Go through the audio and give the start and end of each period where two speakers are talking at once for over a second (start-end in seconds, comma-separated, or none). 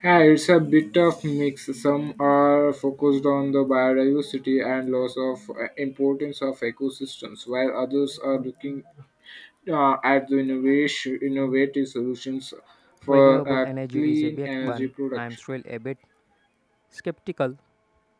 13.1-15.2